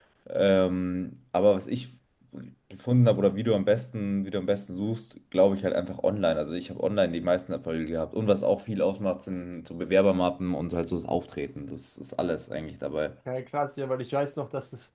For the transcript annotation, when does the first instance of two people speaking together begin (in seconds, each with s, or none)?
none